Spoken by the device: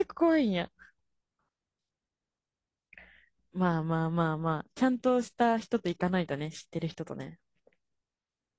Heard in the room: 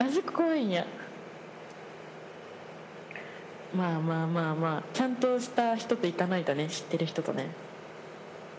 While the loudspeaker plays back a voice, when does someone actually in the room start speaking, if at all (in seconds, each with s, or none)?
none